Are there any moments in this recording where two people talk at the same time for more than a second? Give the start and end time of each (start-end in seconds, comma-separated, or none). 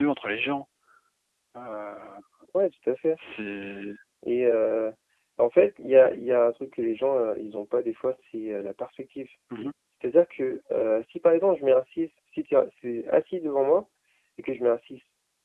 none